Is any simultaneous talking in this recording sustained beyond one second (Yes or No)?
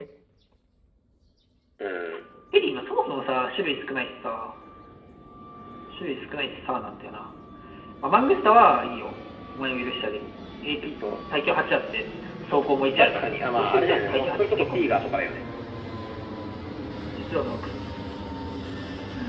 Yes